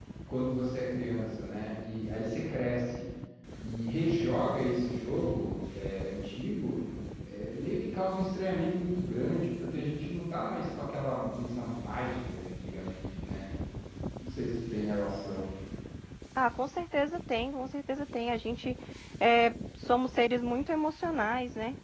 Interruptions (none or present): none